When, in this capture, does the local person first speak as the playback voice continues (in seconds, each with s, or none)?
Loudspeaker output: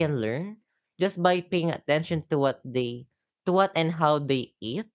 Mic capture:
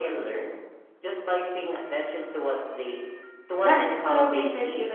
3.6 s